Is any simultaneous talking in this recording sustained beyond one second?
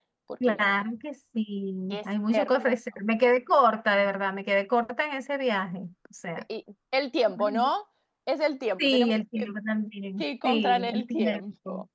Yes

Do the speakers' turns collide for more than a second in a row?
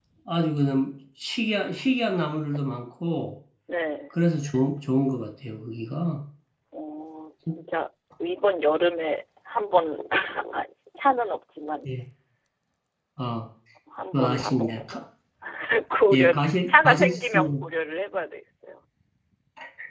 Yes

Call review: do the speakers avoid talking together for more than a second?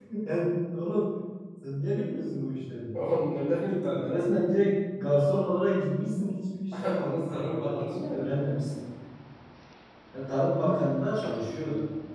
No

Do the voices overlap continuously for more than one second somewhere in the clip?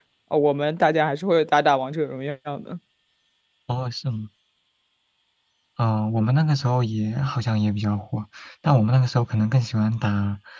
No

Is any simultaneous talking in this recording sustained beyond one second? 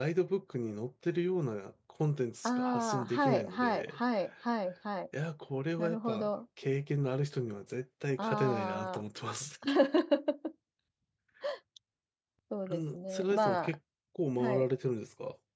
Yes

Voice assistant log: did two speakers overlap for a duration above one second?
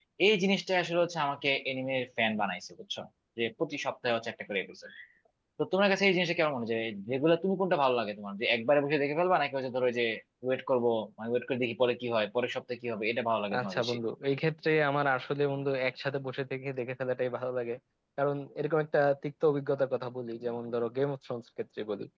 No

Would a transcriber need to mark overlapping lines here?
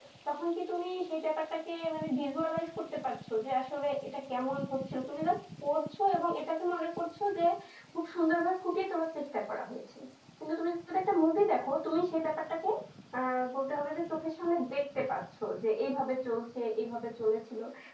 No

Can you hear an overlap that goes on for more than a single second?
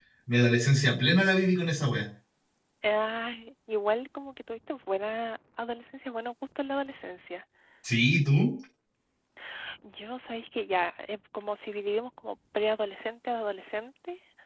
No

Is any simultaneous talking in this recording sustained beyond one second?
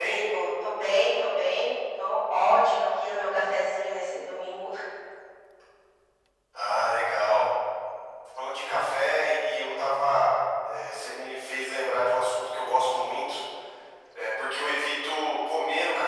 No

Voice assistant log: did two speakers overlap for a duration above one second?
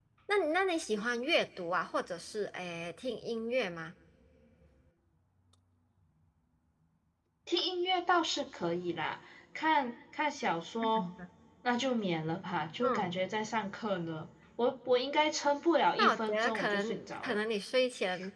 Yes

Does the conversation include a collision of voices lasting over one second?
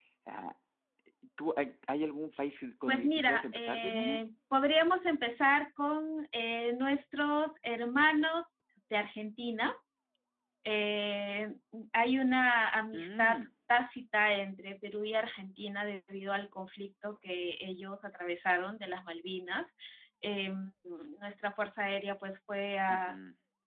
Yes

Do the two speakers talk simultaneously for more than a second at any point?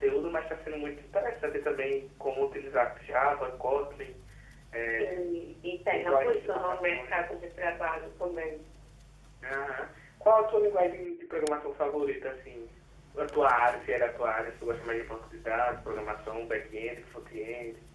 Yes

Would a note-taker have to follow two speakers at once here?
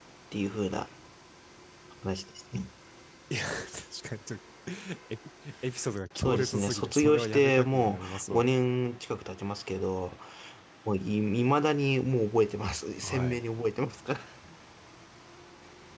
Yes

